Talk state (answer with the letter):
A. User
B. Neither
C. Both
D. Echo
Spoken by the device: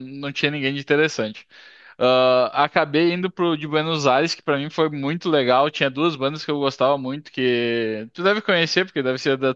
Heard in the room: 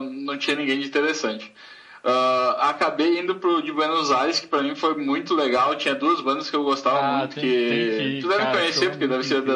C